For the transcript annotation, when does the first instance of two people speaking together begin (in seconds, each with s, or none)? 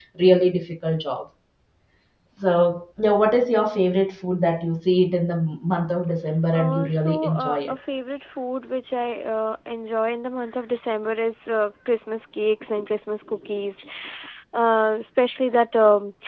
6.5 s